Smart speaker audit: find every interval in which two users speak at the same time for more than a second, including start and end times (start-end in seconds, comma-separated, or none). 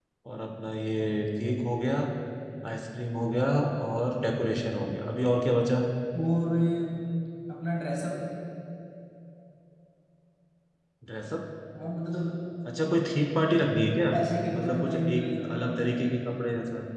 14.6-16.3